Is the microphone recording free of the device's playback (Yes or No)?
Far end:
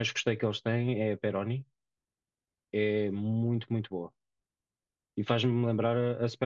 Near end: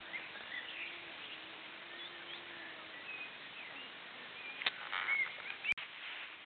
Yes